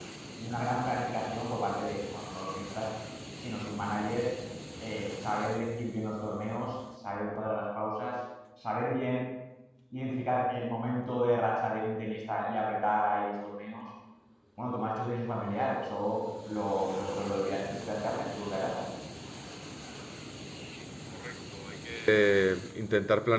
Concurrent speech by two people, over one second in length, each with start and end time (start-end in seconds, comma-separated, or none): none